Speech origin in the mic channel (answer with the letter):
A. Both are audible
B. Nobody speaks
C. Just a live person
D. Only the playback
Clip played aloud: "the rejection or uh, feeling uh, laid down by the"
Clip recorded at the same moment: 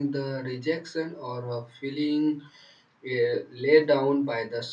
D